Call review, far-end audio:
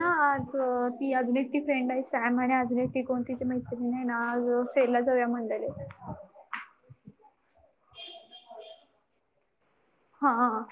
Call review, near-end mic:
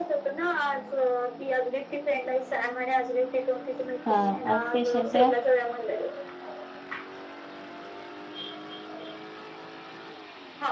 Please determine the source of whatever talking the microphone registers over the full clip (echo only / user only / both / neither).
both